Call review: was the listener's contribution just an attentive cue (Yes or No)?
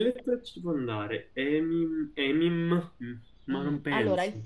No